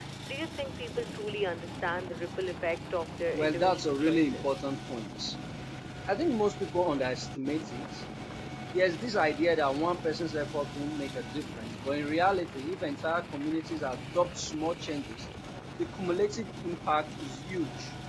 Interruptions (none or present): present